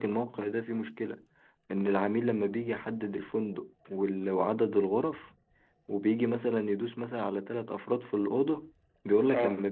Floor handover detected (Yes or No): No